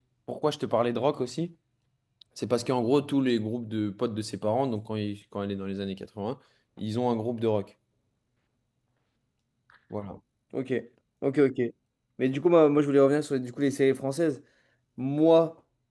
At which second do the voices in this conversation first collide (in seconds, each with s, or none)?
none